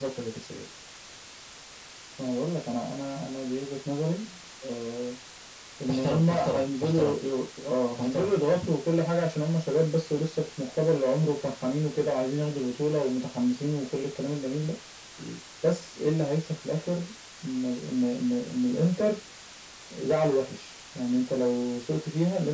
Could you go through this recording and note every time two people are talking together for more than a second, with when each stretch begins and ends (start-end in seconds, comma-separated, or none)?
5.9-7.2